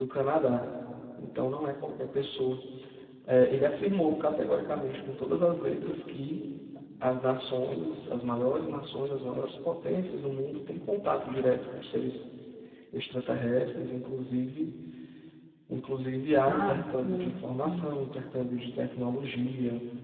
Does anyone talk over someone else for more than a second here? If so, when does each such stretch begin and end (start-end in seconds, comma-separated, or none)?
16.5-17.9